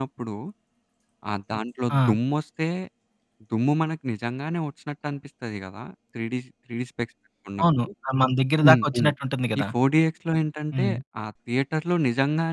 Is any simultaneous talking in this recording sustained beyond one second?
No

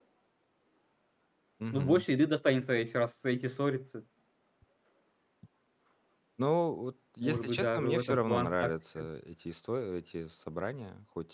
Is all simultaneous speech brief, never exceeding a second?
No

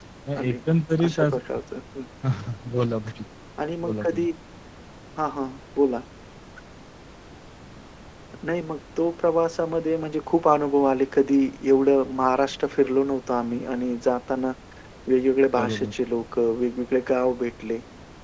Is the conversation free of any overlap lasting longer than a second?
Yes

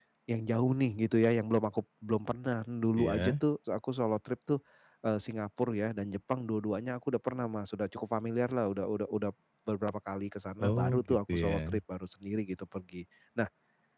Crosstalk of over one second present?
Yes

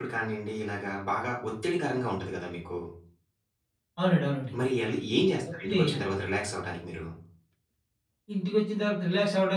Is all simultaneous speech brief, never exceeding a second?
Yes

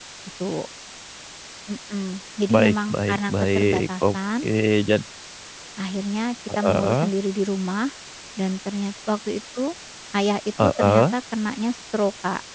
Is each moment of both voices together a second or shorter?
No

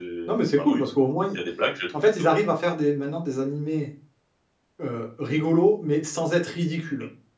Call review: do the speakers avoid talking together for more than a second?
Yes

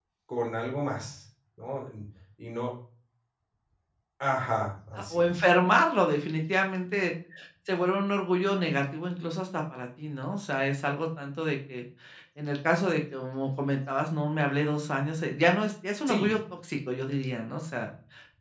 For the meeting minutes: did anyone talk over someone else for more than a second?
No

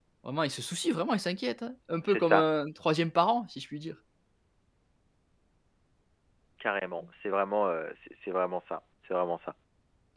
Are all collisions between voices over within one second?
Yes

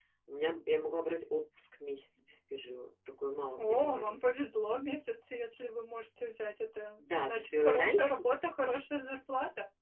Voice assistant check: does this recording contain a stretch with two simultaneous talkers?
Yes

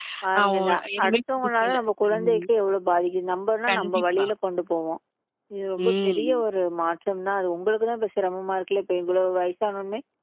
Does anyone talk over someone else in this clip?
Yes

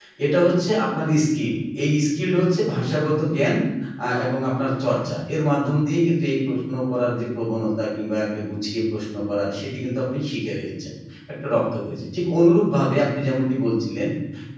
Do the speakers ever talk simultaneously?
No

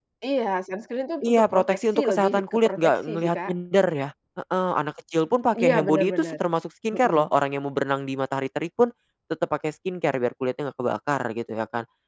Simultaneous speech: Yes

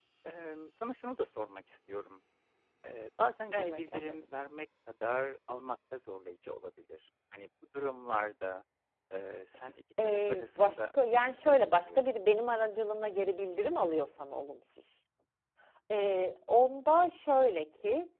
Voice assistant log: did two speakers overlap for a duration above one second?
Yes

